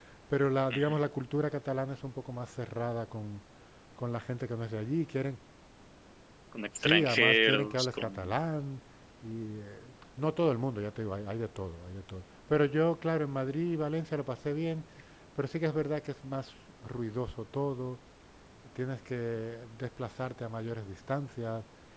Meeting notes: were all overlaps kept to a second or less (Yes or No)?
No